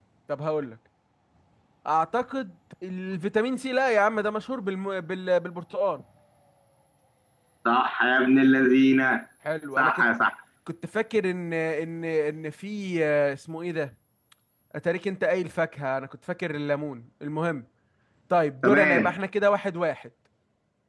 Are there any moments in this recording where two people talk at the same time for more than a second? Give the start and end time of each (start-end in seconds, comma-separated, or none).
none